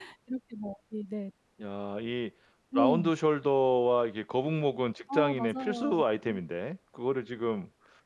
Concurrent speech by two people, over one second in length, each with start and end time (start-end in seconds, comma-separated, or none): 5.1-6.4